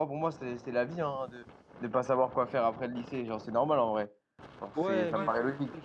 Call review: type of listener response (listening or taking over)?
taking over